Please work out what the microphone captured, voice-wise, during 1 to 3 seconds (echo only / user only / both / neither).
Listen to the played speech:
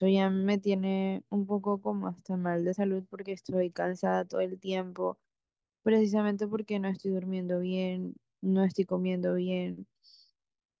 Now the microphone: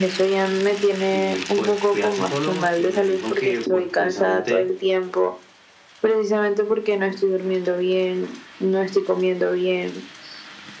both